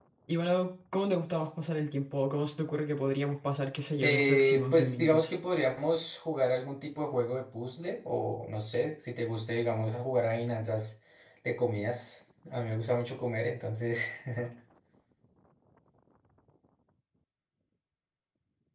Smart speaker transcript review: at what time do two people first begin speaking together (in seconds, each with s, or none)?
4.0 s